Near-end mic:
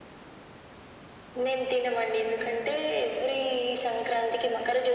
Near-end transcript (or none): none